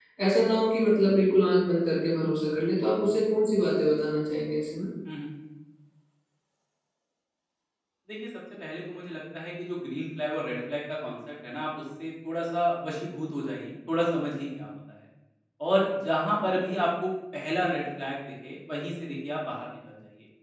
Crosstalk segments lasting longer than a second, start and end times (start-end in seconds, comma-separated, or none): none